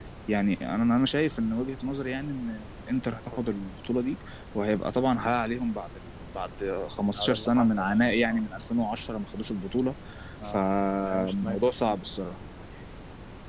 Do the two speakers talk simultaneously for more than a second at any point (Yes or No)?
Yes